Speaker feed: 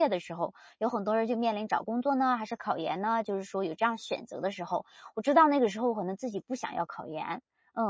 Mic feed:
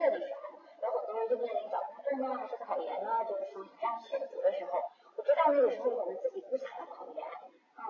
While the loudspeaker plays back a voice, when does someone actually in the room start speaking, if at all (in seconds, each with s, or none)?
none